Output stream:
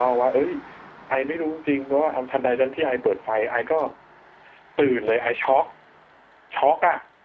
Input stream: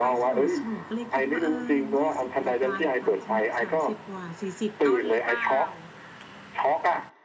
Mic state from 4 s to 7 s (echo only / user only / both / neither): both